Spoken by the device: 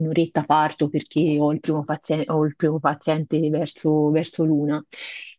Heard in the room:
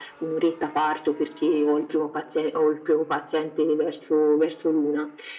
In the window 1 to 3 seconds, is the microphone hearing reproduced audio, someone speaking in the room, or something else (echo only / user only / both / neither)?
echo only